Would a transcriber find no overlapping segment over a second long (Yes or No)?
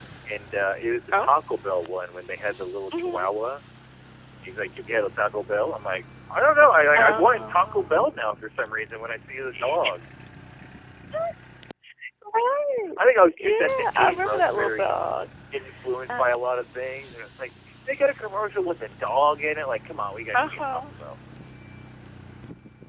No